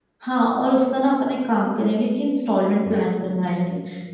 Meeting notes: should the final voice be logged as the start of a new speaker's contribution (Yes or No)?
No